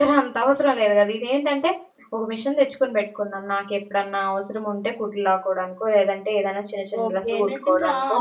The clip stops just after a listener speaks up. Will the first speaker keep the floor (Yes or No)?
No